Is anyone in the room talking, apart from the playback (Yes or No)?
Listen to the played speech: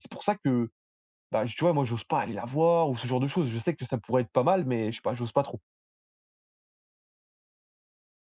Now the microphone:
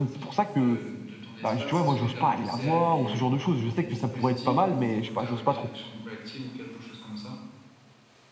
Yes